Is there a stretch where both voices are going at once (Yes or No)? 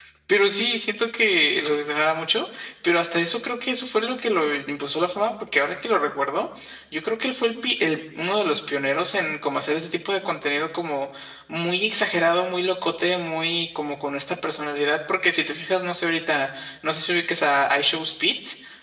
No